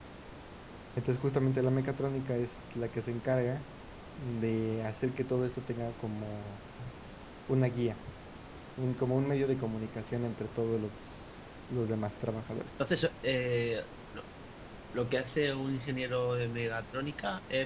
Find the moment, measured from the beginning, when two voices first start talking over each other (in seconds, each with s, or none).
none